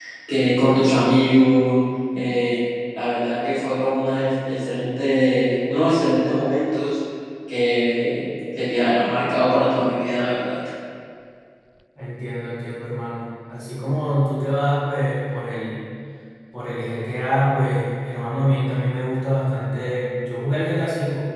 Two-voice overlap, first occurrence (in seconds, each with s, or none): none